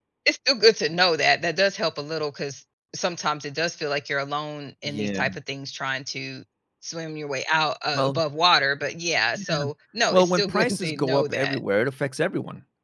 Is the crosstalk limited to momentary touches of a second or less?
No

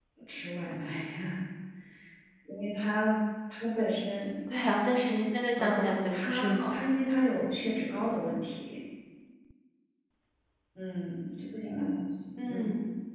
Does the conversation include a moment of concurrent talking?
Yes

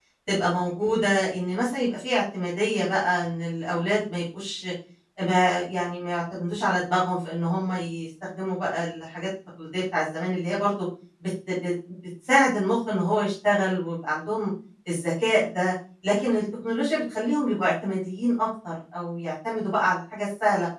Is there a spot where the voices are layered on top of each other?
No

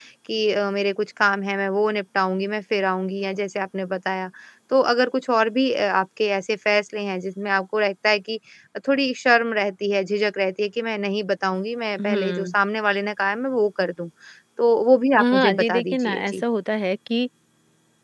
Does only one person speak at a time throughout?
No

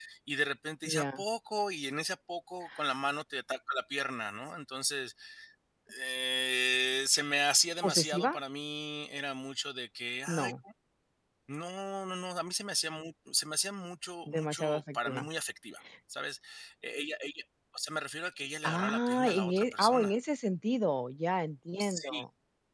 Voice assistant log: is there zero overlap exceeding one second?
No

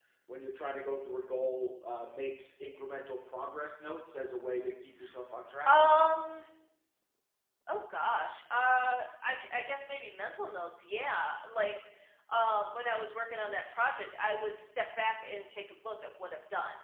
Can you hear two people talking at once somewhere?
No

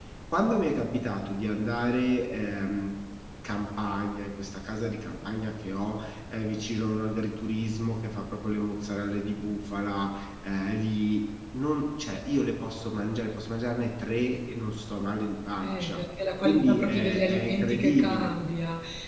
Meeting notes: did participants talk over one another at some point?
Yes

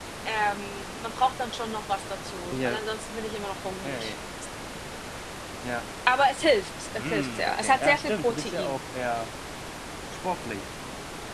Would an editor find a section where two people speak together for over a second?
Yes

